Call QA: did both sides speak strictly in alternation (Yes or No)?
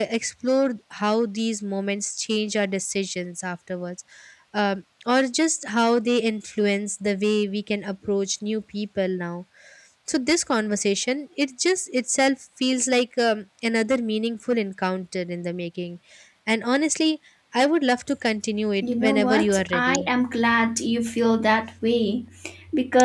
No